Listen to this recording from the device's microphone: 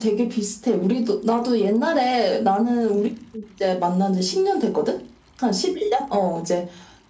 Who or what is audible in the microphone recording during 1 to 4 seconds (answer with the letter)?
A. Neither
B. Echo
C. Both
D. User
B